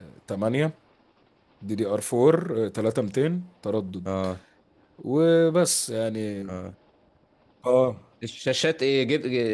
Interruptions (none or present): none